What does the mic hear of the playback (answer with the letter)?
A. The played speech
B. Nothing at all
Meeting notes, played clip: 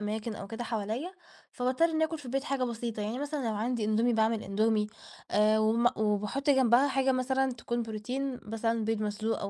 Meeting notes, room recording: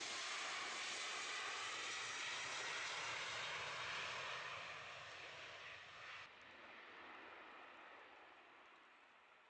B